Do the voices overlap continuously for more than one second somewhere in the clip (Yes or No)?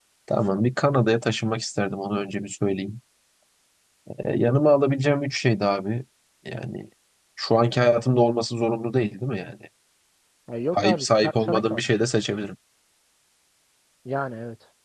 Yes